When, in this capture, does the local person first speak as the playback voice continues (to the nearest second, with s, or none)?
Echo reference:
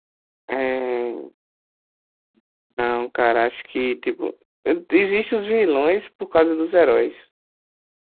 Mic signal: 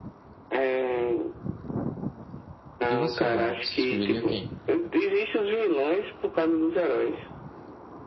3 s